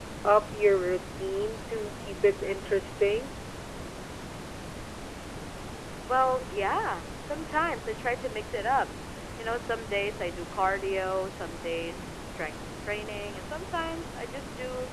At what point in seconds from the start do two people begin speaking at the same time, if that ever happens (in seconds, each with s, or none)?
none